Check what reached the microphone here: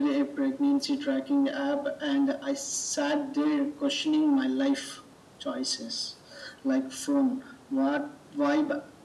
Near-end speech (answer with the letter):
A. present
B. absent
B